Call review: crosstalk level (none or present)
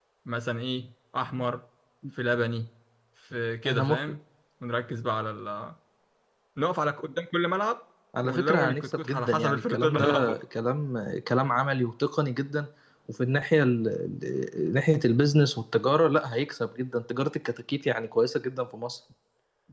present